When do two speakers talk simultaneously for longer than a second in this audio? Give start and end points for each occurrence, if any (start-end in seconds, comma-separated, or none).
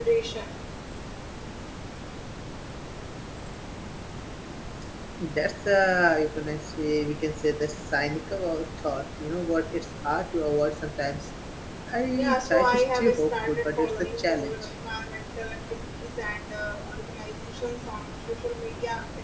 12.2-14.5